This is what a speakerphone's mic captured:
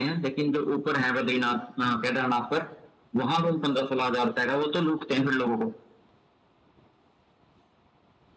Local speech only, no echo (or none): none